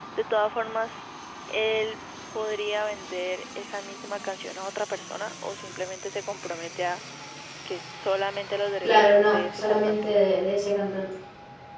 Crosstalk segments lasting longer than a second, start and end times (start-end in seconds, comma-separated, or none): 8.8-10.1